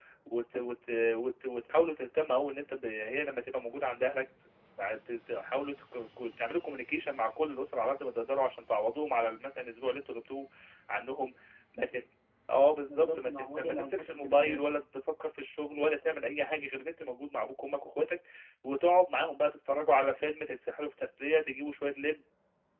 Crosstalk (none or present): present